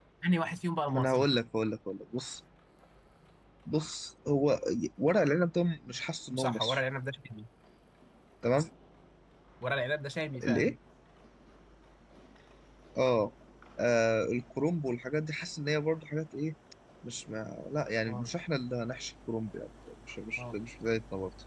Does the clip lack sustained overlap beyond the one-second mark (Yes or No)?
Yes